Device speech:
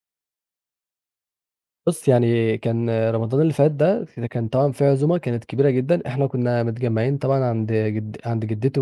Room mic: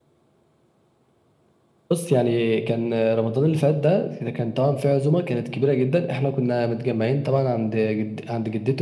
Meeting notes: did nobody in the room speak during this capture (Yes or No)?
Yes